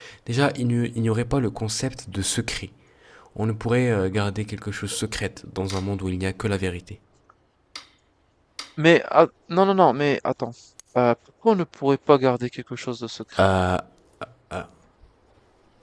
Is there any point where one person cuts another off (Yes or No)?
No